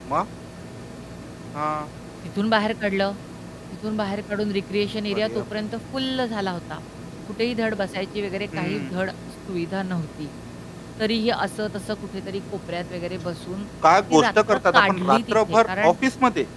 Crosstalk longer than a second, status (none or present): present